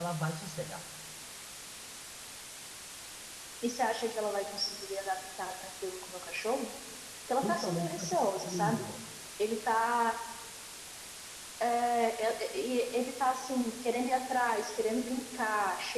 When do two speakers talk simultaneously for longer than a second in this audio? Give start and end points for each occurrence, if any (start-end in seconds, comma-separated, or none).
7.4-8.8